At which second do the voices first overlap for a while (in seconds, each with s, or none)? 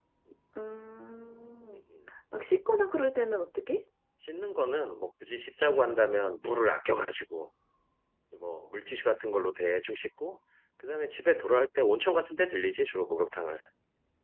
none